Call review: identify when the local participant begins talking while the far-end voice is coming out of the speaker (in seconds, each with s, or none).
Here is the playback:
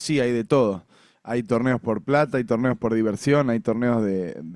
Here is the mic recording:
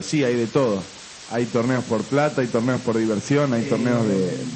3.5 s